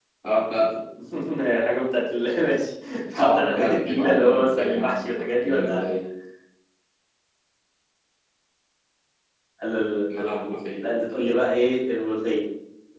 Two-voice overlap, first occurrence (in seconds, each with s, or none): 3.2 s